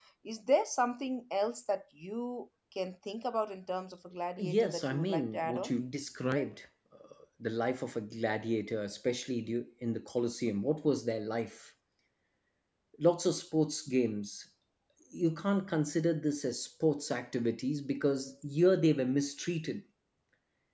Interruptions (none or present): present